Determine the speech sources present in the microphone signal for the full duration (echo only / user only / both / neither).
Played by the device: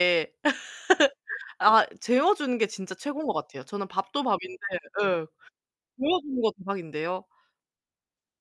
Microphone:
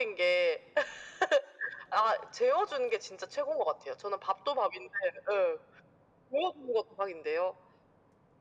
echo only